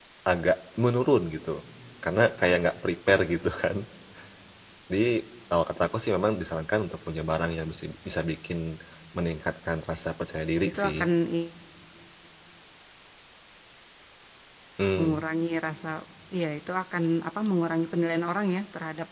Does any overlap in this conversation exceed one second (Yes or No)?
No